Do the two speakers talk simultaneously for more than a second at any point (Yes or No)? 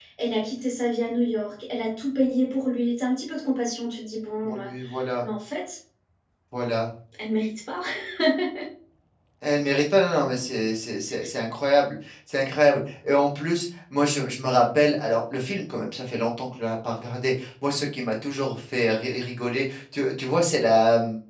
No